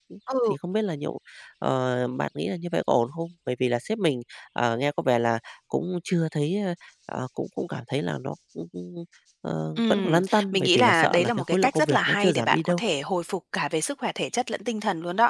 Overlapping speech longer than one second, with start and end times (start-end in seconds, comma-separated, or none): 9.8-12.8